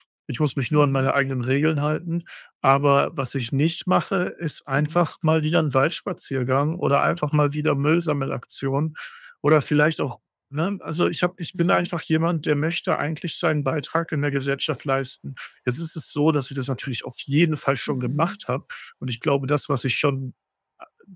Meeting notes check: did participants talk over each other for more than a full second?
No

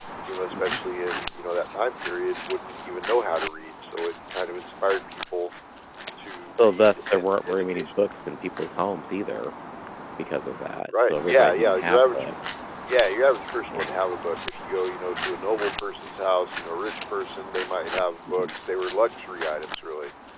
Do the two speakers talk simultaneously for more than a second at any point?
Yes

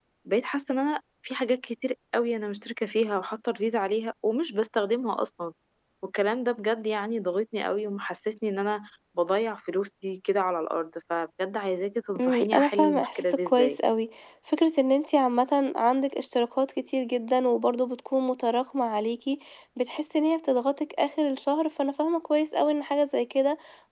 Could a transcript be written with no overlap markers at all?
No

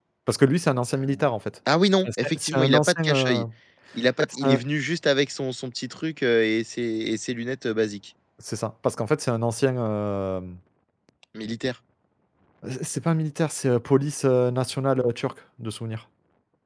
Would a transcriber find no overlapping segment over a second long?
No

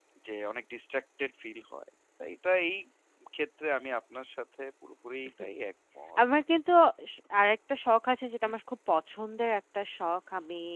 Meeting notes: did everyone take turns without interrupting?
Yes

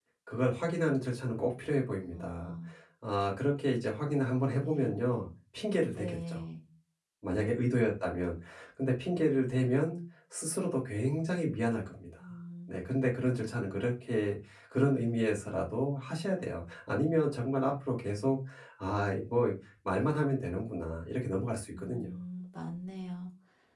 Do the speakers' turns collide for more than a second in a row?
No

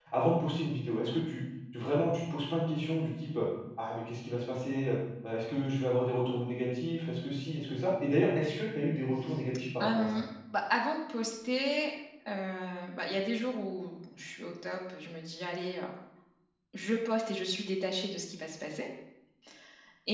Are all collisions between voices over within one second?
Yes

